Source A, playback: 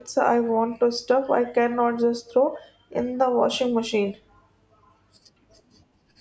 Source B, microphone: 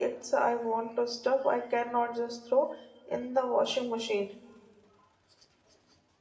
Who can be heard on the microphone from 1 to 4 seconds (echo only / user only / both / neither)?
echo only